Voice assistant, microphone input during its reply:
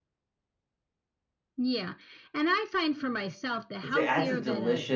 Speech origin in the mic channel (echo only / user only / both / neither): both